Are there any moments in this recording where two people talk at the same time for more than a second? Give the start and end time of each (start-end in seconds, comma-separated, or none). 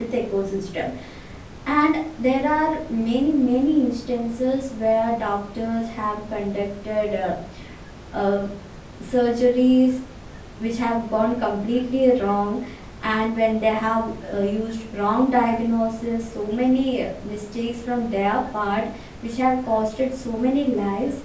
none